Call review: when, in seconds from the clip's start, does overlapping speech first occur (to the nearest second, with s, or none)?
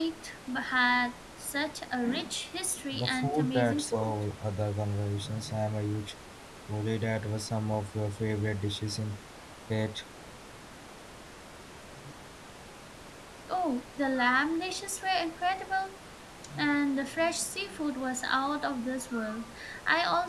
3 s